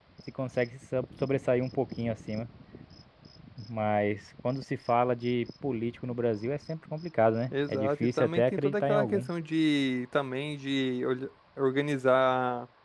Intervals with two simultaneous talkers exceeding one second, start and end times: 7.5-9.3

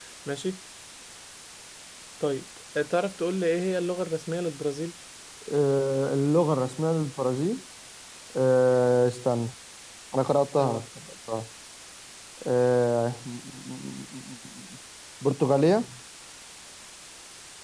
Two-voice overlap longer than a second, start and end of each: none

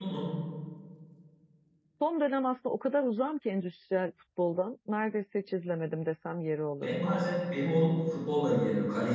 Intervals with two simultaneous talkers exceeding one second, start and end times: none

